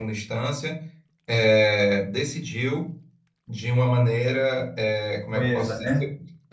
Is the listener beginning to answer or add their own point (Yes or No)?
No